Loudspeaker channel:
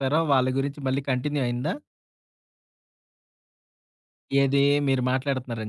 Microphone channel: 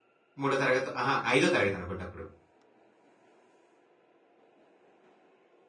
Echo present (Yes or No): No